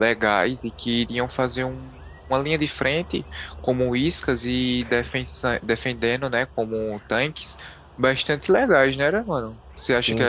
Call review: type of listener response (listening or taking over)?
taking over